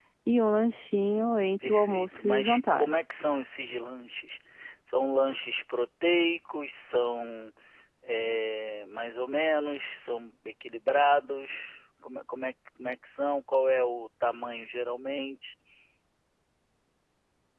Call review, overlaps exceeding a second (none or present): present